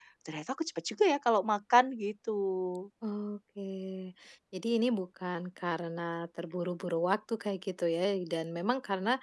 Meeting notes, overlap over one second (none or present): none